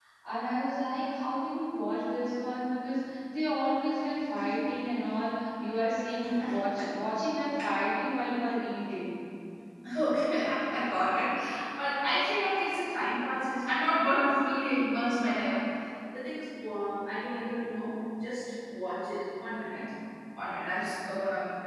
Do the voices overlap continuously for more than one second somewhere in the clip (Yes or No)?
No